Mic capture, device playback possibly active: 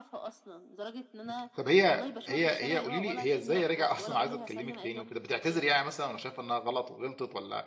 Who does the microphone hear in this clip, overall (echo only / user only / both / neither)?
both